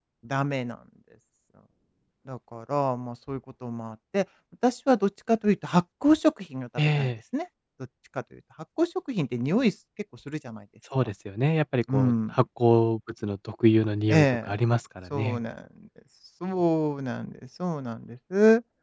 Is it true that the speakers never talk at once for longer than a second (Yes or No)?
Yes